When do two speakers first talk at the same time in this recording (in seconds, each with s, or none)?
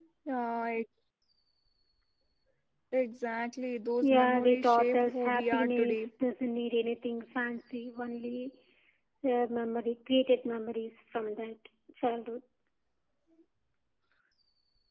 4.0 s